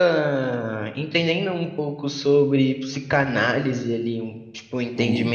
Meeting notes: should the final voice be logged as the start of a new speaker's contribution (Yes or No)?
No